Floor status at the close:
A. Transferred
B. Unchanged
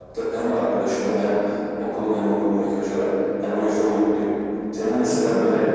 B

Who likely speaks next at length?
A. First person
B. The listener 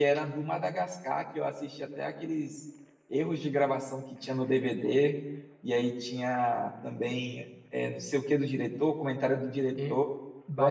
B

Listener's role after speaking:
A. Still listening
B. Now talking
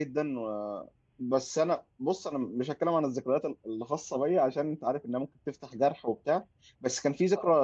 A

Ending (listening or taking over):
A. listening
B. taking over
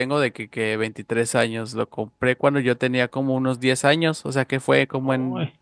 A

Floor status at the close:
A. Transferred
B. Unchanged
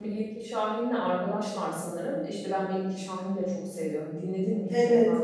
A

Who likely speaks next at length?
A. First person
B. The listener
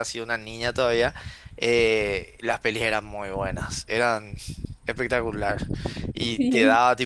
A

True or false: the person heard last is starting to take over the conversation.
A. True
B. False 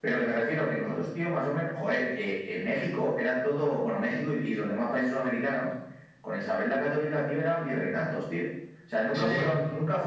B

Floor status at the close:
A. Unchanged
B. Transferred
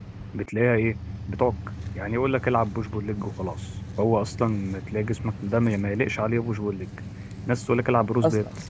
A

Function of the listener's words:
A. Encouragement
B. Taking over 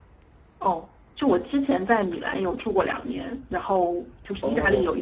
A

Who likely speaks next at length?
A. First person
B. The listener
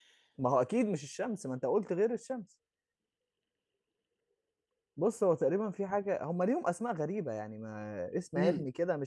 A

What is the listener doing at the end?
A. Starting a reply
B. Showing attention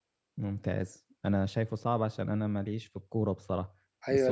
A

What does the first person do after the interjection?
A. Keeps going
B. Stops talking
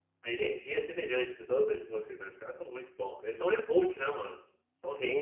B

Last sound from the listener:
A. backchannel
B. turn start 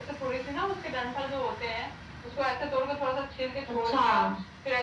A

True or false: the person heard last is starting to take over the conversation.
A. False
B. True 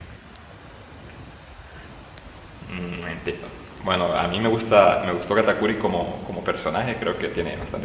A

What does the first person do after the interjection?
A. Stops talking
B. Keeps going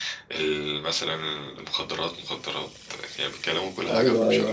A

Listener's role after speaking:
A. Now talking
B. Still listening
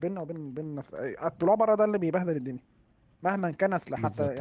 B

